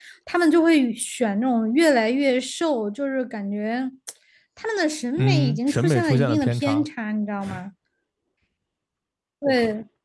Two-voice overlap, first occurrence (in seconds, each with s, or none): 5.2 s